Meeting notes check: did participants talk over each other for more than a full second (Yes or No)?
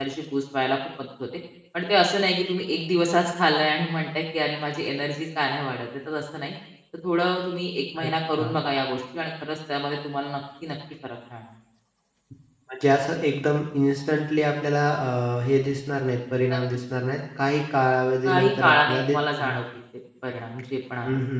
Yes